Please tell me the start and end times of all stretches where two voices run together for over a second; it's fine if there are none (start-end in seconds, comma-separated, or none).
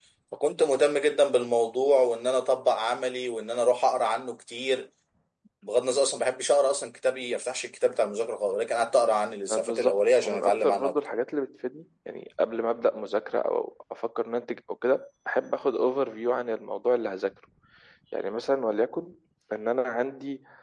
9.5-10.9